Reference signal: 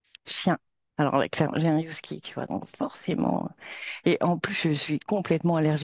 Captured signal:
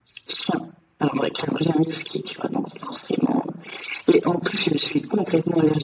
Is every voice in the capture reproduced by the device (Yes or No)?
Yes